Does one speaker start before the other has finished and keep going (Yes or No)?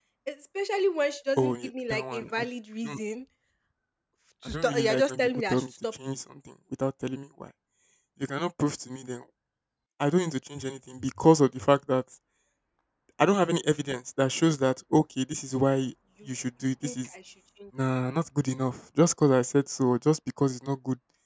Yes